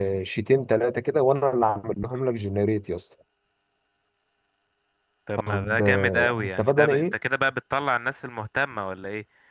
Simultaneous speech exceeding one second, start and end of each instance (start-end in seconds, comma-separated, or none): 5.4-7.1